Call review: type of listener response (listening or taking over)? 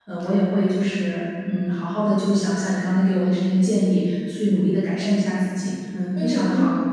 taking over